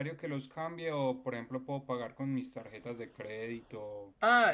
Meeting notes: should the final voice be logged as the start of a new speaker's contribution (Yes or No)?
Yes